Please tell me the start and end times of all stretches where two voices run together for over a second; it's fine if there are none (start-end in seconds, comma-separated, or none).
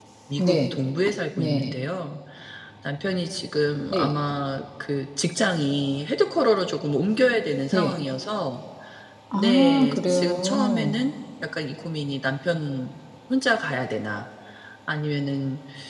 9.3-11.0